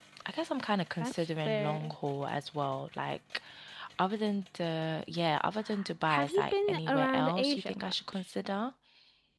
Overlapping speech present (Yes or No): Yes